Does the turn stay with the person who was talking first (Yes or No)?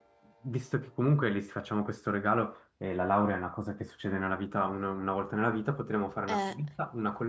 Yes